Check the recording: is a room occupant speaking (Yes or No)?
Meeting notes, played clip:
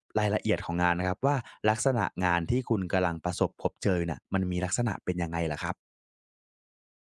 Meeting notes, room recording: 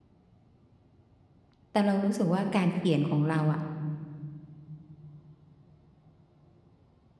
Yes